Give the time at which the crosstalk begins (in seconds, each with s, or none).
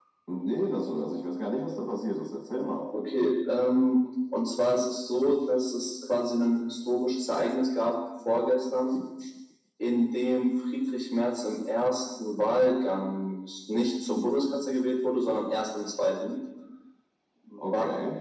none